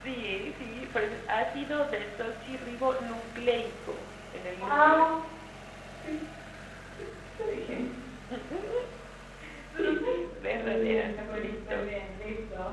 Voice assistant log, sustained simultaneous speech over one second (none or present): present